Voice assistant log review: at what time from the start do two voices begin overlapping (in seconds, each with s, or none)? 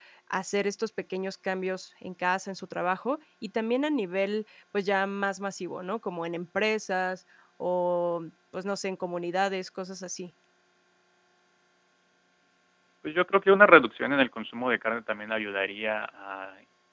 none